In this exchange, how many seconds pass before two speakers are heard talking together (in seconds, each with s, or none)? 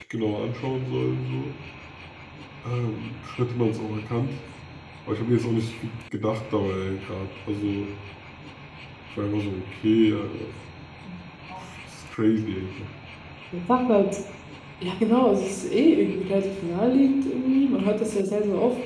none